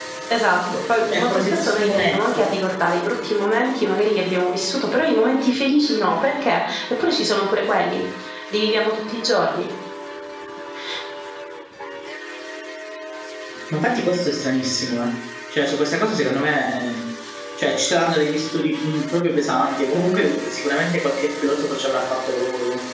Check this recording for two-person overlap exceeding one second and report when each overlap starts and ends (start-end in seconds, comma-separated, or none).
1.1-2.4